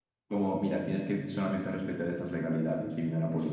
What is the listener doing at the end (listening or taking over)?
taking over